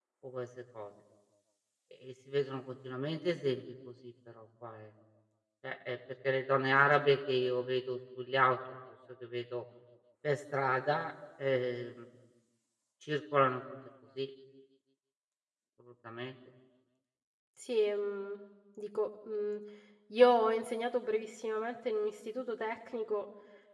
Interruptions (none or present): none